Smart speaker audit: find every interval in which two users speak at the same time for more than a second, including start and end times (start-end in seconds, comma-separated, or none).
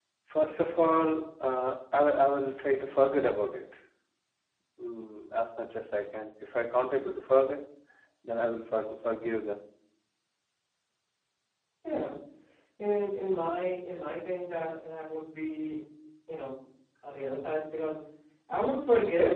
none